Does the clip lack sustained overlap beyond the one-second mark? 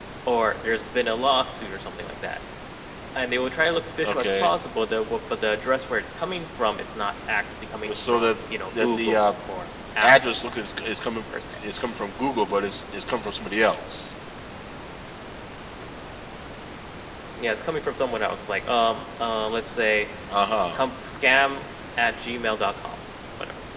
Yes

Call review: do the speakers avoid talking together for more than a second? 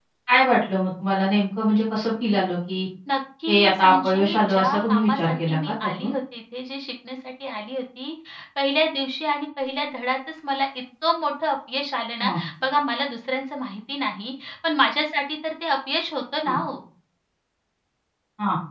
No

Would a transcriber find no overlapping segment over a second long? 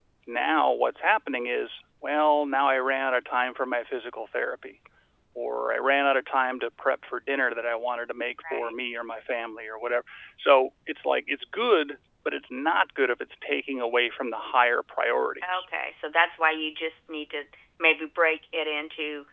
Yes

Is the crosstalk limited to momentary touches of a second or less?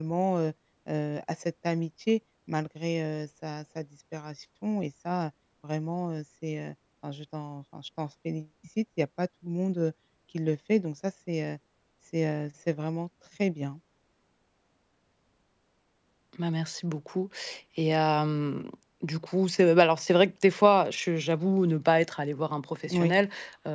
Yes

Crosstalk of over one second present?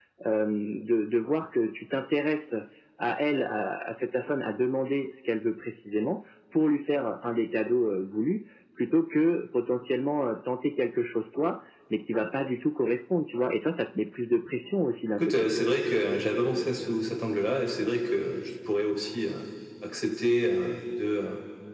No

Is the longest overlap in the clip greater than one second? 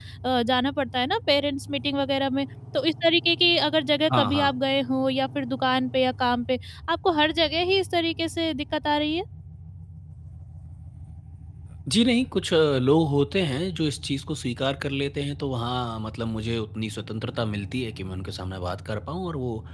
No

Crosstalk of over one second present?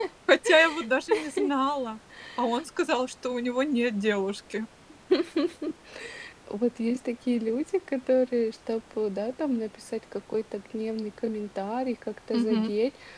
No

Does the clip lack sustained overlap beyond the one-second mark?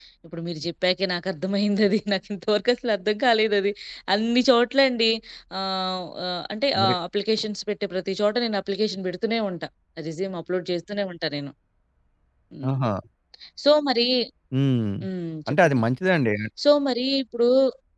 Yes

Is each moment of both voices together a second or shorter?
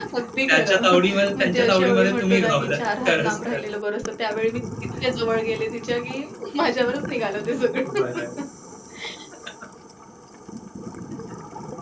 No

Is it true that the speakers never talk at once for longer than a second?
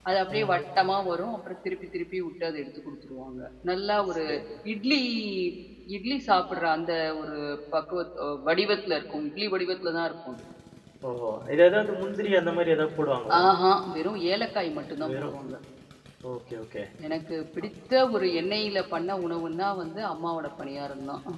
Yes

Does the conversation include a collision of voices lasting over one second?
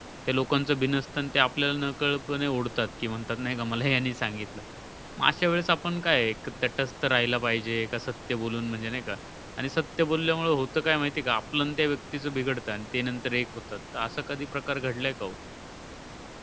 No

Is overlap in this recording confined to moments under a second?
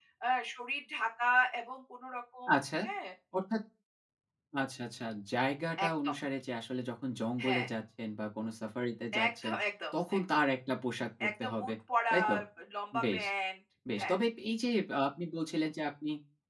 Yes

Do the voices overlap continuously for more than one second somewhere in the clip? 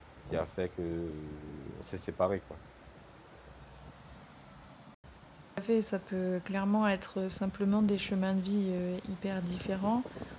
No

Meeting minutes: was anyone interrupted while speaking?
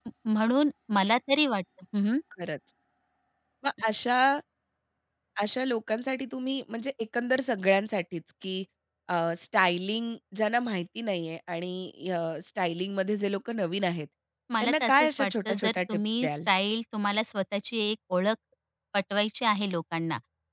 Yes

